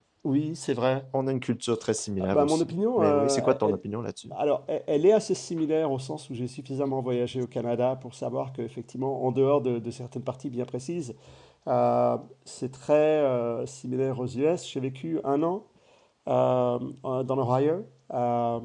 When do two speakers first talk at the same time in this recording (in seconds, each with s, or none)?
2.2 s